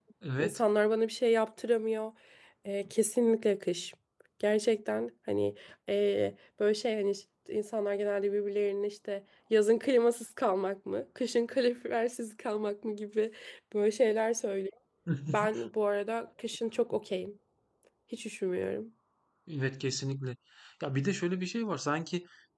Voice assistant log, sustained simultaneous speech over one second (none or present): none